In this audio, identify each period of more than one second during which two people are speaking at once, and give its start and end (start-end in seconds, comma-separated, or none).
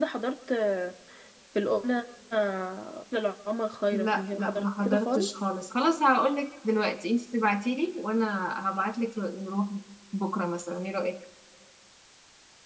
3.9-5.3